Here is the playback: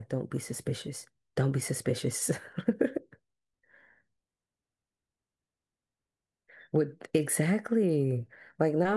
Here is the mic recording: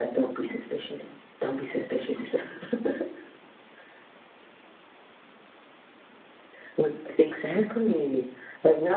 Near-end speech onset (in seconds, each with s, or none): none